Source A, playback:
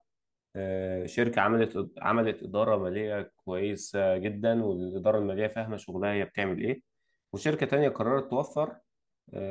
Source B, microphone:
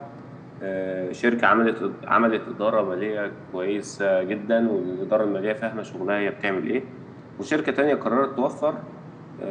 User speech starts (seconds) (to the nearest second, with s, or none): none